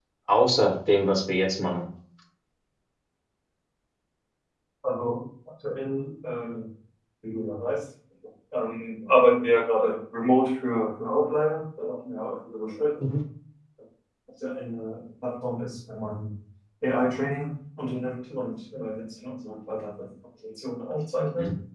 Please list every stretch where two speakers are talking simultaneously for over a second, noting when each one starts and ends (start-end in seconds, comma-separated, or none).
none